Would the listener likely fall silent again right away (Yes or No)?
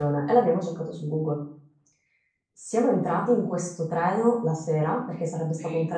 Yes